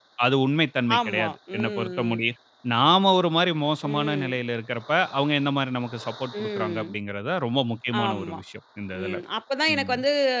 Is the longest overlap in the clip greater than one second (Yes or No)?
Yes